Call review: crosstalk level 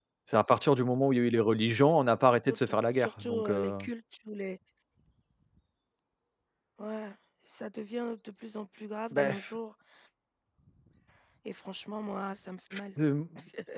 present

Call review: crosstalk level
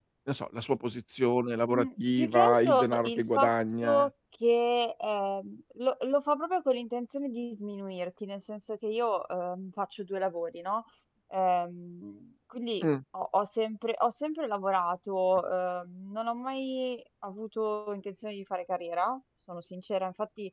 present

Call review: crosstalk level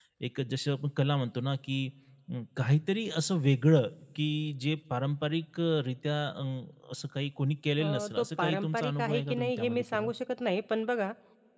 present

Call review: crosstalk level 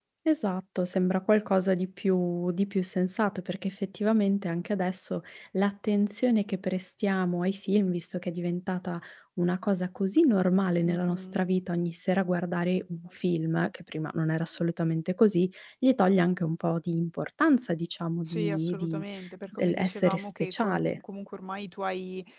present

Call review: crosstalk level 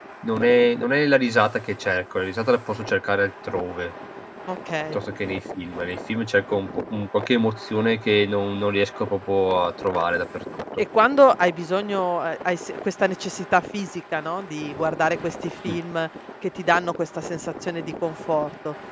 none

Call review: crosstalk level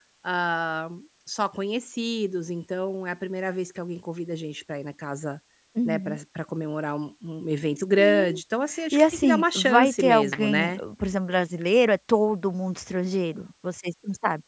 present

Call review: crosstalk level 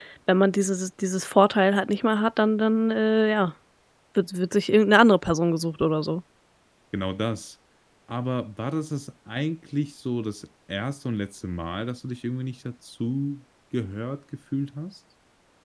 none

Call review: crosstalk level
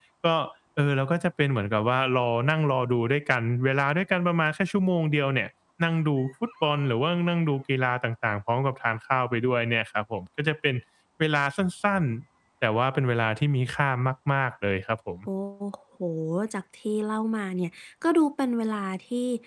none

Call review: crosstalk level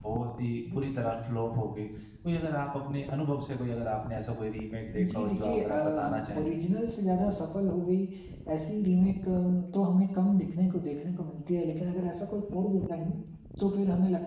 present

